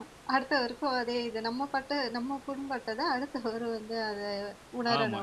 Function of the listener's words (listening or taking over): taking over